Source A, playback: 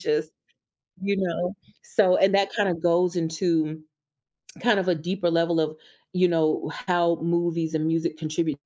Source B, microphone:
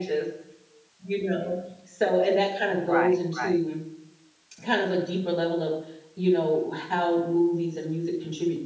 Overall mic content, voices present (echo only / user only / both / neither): both